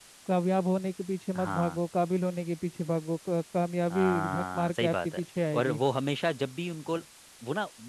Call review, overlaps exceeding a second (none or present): present